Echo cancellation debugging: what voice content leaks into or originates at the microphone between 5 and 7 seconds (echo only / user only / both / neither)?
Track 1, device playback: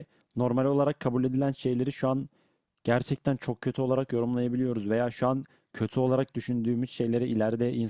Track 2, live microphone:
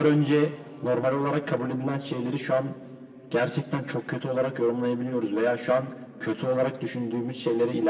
echo only